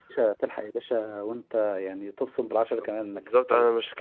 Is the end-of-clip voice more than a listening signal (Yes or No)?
Yes